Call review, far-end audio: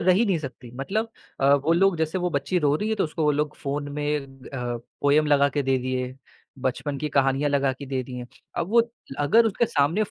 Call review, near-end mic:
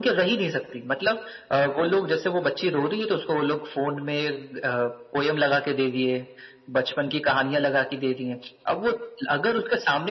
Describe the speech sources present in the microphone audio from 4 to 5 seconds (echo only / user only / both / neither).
echo only